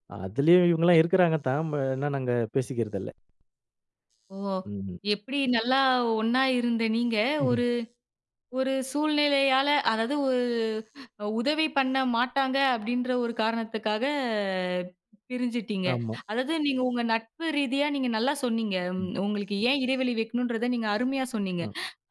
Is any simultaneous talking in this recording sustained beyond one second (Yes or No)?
No